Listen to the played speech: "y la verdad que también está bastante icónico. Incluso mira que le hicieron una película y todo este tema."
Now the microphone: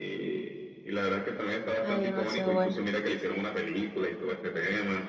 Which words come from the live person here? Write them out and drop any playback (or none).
Ay, demasiado buena.